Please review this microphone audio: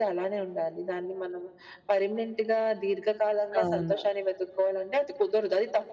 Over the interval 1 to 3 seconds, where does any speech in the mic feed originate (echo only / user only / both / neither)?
echo only